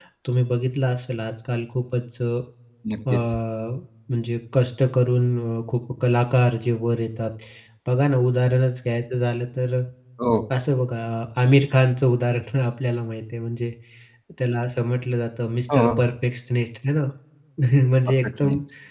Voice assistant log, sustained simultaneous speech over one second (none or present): none